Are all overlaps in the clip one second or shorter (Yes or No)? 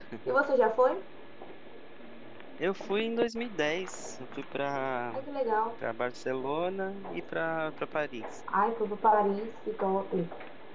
Yes